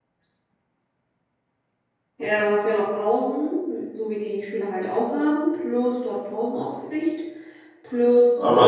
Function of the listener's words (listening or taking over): taking over